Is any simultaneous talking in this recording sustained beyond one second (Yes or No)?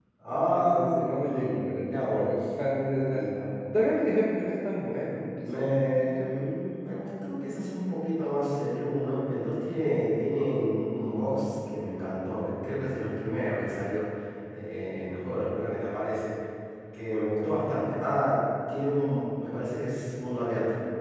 Yes